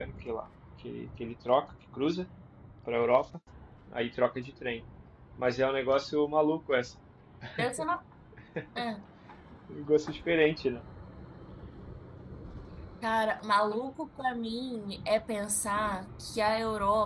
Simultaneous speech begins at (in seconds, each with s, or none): none